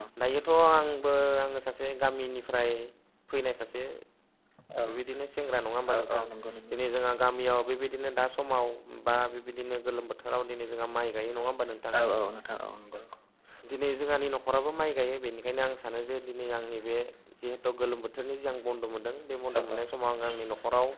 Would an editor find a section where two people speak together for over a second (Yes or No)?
No